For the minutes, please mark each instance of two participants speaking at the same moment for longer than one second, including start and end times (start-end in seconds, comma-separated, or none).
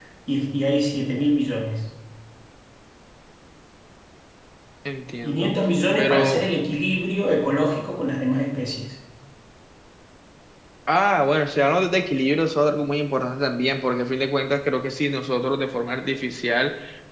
none